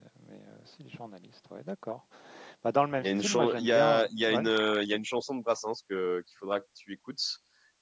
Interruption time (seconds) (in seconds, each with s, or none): 3.0 s